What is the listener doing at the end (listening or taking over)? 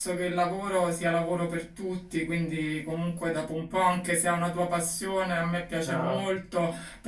listening